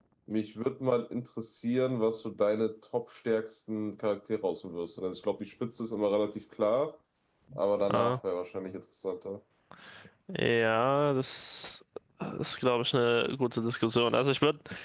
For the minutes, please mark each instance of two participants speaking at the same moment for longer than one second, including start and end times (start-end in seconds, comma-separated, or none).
none